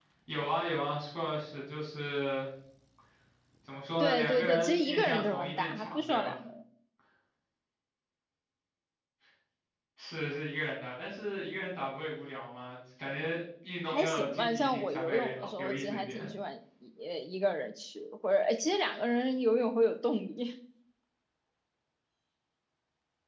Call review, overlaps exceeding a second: present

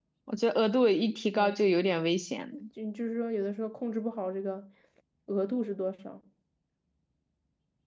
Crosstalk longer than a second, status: none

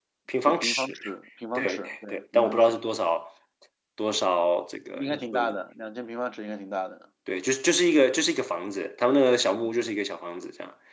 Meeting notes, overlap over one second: present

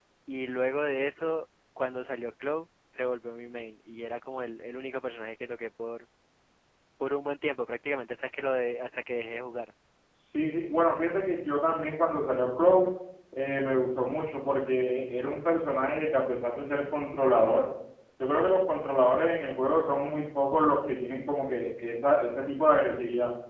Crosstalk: none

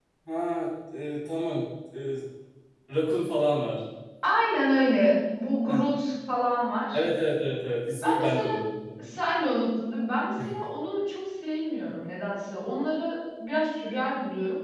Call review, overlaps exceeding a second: none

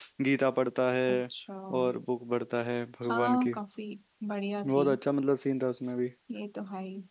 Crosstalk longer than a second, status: none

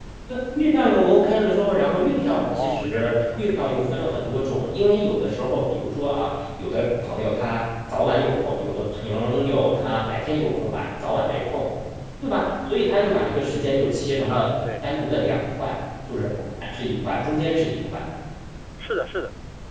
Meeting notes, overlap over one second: present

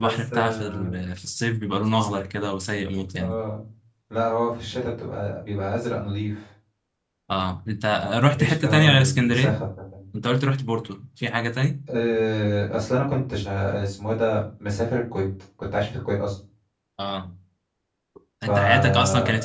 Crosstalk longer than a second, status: present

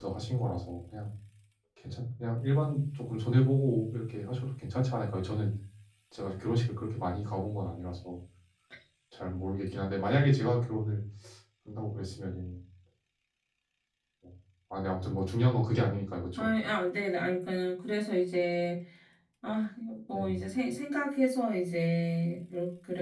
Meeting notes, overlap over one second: none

